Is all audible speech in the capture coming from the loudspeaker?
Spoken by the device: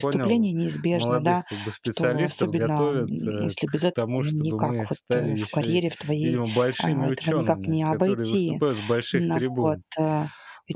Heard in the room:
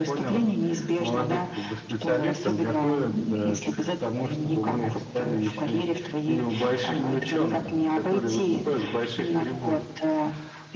Yes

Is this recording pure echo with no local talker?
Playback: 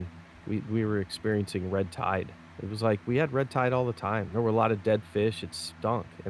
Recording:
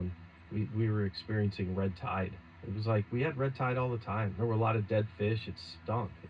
Yes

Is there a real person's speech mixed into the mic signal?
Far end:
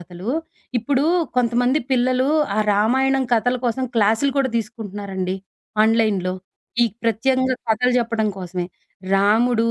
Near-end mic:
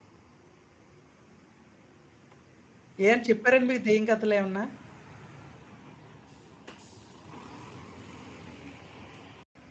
Yes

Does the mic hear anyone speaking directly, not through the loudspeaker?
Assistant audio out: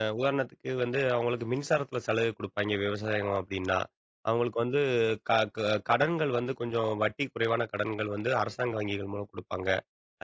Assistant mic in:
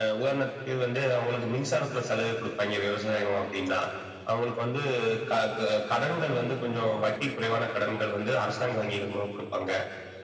No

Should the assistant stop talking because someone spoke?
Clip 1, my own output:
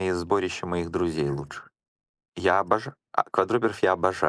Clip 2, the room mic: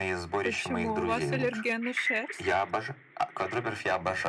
Yes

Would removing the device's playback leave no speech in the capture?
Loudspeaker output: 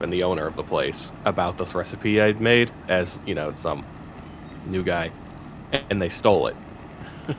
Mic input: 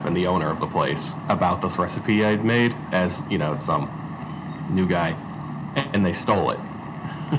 Yes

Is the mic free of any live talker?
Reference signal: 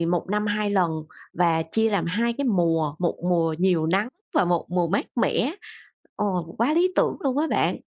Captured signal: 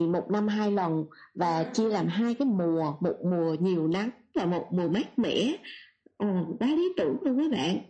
No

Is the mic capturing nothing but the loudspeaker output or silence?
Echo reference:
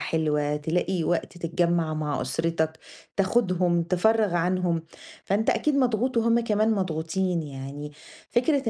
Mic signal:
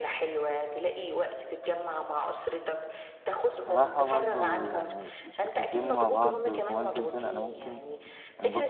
No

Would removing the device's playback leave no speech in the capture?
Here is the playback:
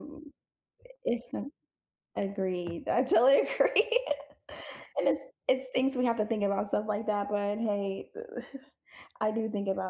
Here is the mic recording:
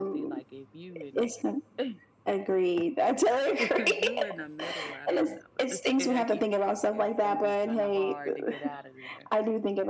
No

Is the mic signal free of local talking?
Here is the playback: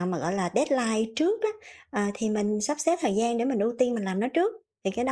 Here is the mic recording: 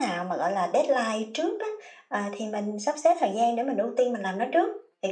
Yes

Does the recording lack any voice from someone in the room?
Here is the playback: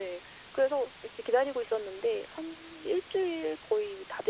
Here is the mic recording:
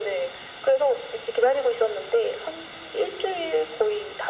Yes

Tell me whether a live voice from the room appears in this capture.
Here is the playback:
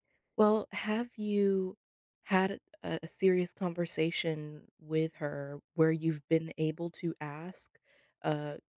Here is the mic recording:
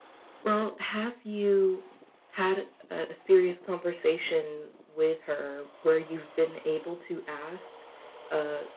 No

